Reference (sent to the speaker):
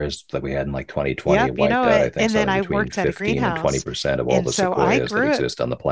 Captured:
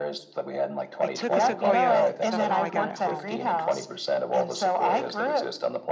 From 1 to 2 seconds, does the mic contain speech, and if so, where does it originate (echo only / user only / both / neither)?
both